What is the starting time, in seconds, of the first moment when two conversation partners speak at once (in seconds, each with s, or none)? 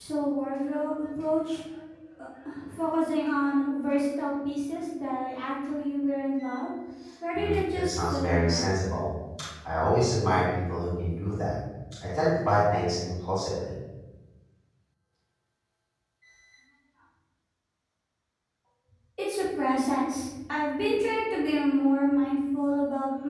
7.3 s